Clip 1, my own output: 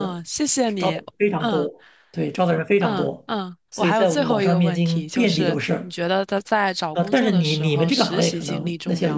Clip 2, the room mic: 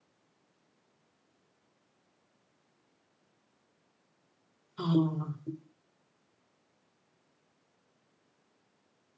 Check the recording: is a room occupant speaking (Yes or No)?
Yes